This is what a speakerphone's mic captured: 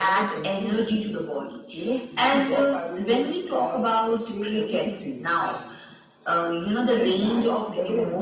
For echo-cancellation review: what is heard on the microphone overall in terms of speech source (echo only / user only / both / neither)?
echo only